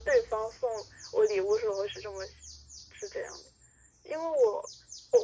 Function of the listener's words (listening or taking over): listening